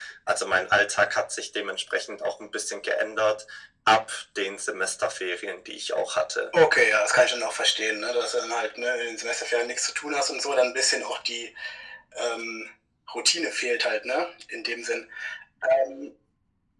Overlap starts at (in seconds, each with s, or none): none